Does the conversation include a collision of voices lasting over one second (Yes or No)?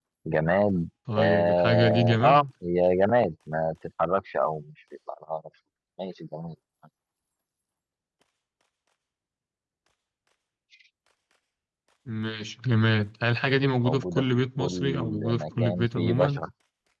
Yes